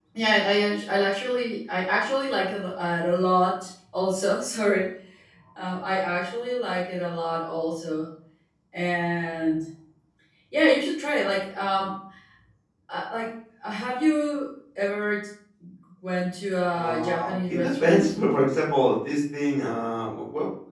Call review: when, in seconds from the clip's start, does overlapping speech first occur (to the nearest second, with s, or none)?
17 s